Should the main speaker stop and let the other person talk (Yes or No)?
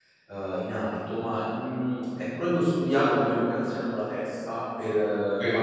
No